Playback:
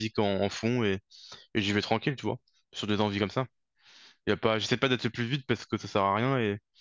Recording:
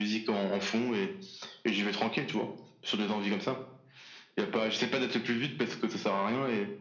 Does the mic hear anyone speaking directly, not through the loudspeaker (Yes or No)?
No